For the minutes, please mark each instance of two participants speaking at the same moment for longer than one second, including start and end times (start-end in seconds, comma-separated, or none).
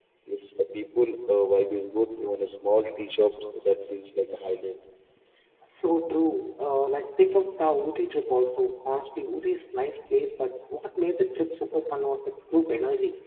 none